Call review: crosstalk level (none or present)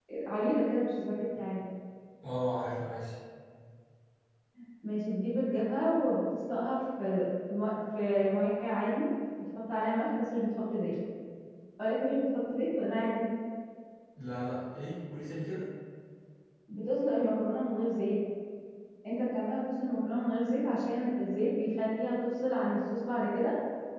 none